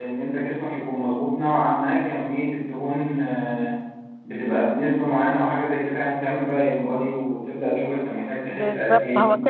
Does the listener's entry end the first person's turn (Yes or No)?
Yes